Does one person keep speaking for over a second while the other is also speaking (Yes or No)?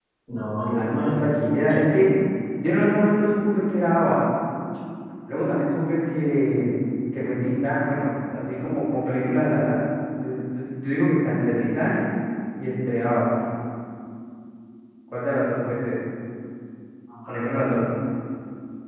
Yes